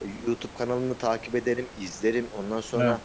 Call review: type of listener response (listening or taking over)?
listening